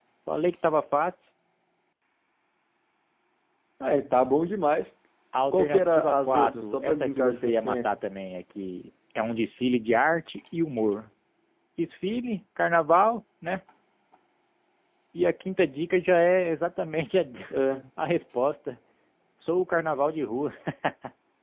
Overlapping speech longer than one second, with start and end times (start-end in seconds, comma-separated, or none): 5.5-8.0